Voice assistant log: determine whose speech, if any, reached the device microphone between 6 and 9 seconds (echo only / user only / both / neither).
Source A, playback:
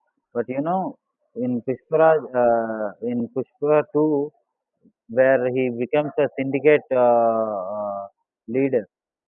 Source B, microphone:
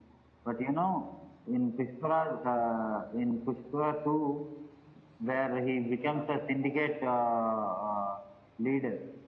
echo only